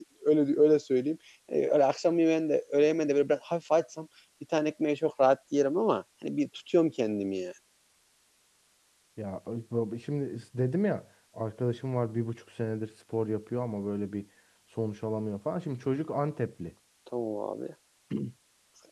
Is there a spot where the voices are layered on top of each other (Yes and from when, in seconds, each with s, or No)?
No